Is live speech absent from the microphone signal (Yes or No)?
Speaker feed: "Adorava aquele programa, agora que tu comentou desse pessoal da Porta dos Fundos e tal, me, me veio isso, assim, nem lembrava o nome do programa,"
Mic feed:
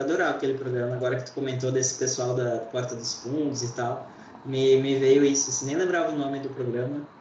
Yes